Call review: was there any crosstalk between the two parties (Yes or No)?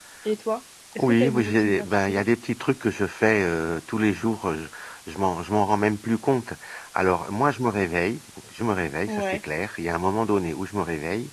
Yes